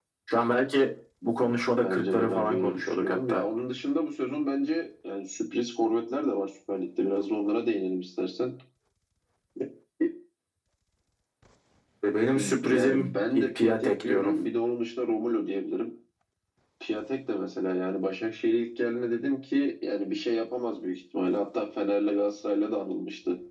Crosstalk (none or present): present